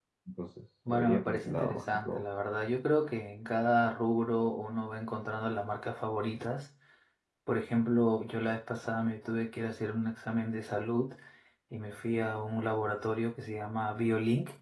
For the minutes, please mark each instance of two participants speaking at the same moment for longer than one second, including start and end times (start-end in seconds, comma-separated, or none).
0.9-2.2